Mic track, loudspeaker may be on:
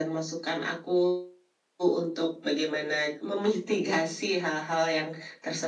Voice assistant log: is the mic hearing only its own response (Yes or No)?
Yes